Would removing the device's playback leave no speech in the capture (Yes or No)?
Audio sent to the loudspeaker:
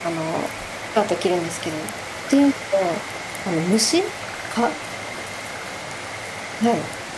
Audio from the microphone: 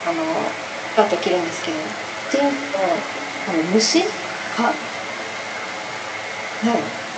Yes